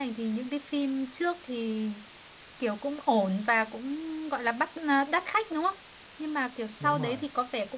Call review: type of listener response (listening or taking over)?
listening